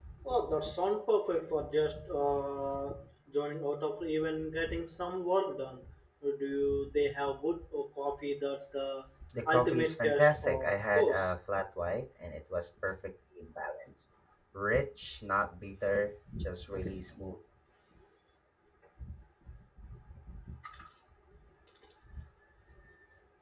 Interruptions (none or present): present